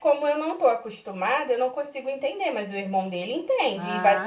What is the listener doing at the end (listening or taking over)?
taking over